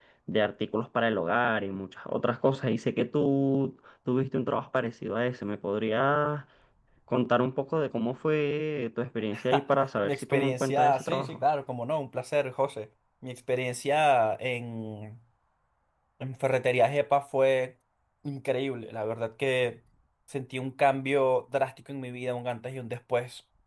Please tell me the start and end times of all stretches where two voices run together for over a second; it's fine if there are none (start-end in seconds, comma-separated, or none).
10.0-11.4